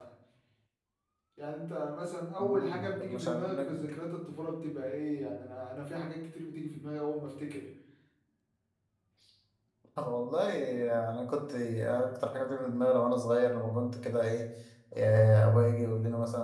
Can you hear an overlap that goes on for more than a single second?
Yes, from 2.4 s

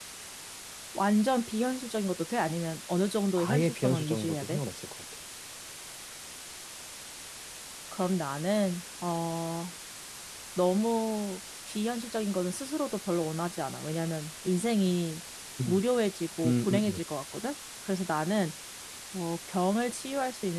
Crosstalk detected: Yes, from 3.4 s

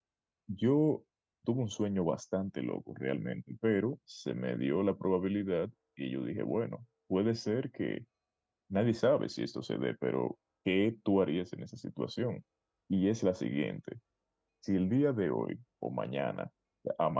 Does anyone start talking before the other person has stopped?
No

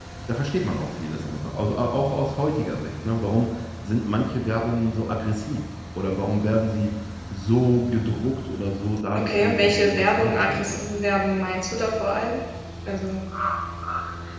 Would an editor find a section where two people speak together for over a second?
Yes, from 9.1 s

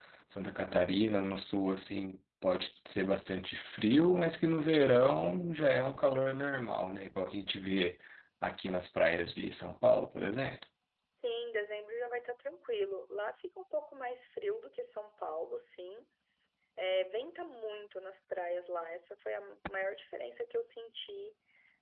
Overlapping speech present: No

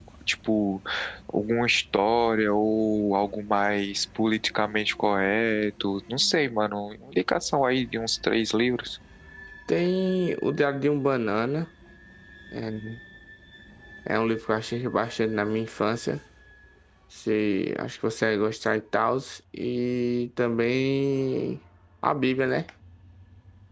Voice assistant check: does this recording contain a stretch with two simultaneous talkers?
No

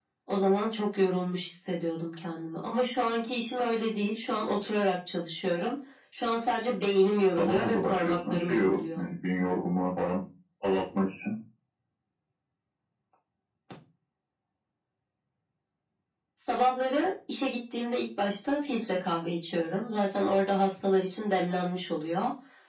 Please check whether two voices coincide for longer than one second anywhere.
Yes, from 7.4 s

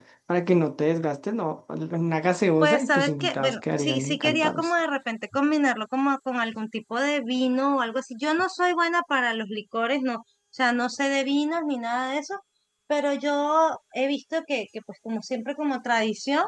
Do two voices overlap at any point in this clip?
Yes, from 2.6 s

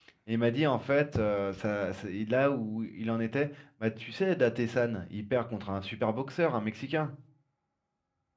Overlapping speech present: No

